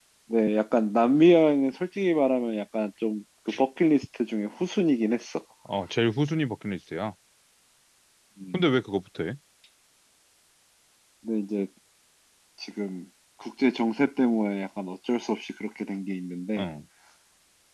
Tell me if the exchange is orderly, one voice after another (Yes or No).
Yes